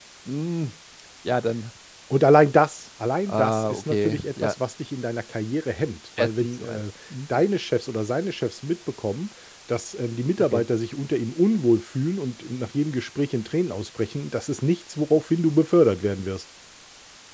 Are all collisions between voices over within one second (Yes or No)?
No